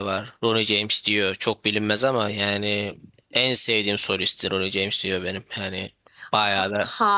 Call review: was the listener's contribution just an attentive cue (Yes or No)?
No